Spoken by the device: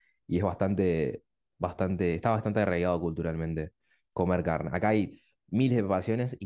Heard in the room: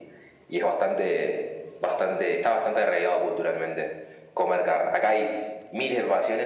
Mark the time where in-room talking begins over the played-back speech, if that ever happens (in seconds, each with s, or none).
none